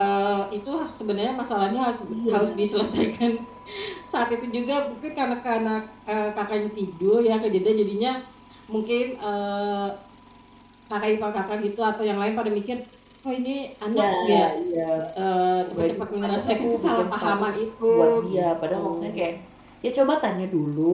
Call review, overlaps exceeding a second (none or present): present